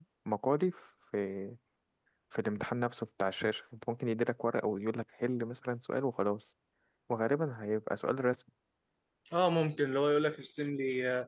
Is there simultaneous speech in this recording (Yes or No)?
No